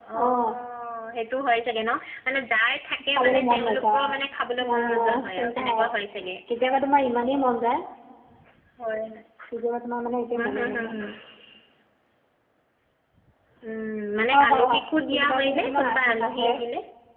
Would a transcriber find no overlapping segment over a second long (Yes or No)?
No